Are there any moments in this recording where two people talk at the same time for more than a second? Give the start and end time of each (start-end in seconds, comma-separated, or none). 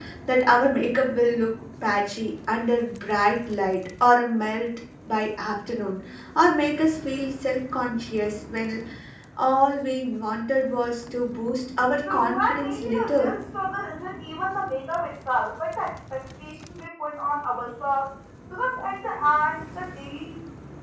12.1-13.3